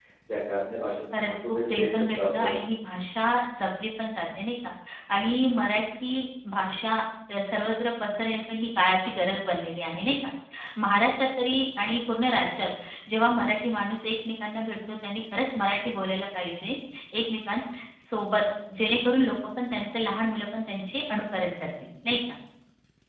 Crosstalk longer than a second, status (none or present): present